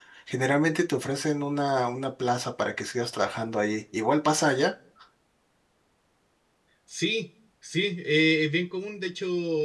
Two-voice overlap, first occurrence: none

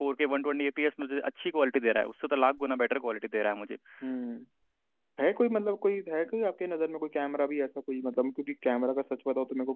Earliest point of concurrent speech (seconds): none

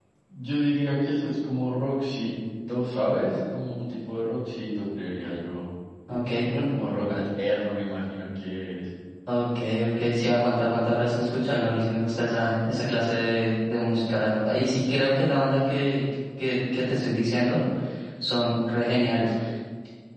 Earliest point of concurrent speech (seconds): none

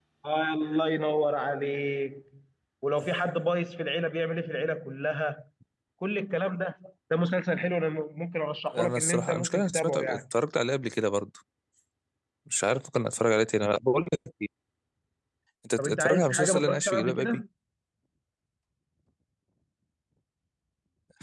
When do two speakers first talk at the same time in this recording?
9 s

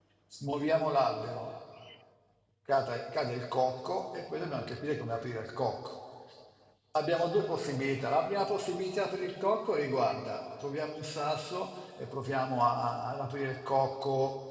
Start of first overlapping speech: none

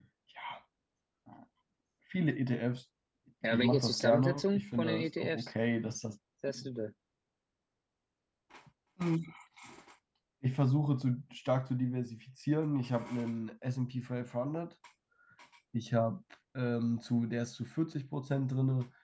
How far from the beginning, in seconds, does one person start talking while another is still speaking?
3 s

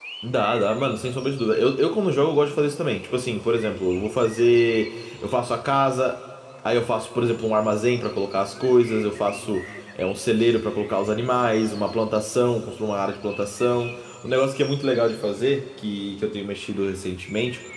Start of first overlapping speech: none

